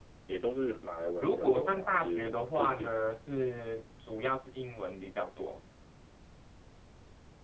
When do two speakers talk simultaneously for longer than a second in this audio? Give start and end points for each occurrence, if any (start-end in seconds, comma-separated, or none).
1.2-2.9